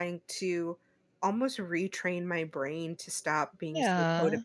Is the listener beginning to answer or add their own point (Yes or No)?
No